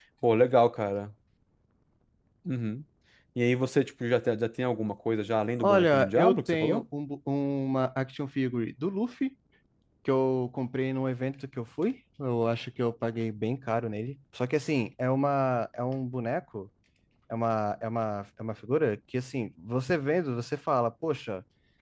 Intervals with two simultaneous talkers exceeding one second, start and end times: 5.6-6.8

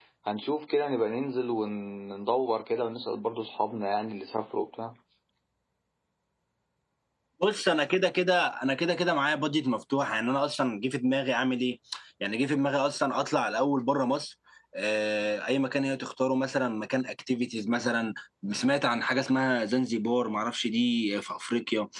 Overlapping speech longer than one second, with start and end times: none

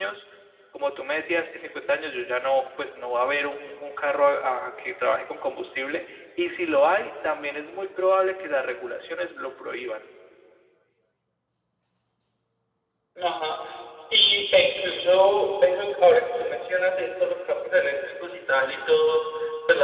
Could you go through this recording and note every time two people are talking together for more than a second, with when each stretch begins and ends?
none

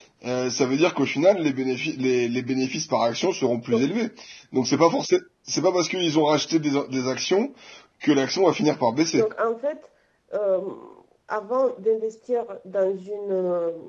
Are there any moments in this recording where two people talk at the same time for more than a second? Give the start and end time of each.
none

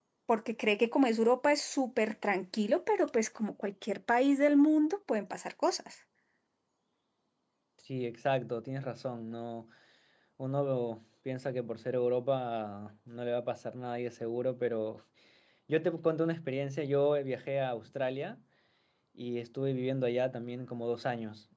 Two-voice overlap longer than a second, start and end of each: none

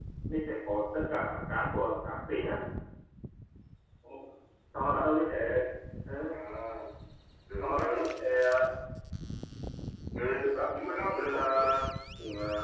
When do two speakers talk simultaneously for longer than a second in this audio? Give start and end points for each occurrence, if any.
10.4-11.7

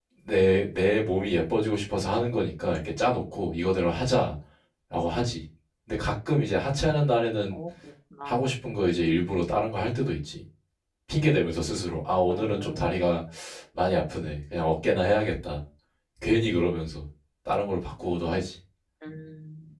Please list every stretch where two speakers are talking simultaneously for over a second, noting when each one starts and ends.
none

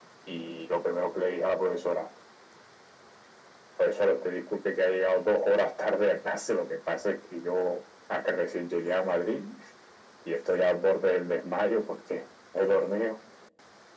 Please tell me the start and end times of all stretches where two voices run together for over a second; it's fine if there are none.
none

